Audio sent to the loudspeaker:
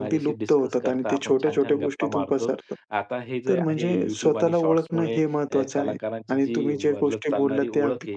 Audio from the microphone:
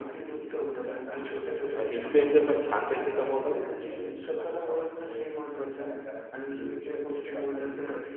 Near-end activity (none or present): present